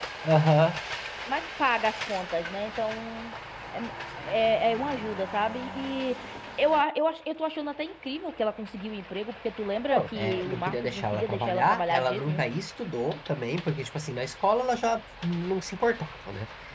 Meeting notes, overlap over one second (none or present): present